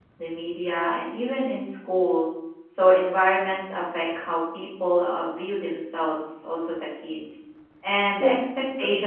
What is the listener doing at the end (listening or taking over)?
listening